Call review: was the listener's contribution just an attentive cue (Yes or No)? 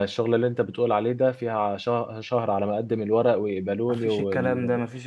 No